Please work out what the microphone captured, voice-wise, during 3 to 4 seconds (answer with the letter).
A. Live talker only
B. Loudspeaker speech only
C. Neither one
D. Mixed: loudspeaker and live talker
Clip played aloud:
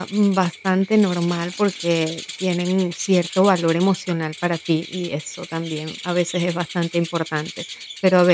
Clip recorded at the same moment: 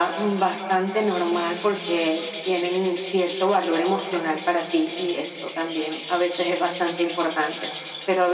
B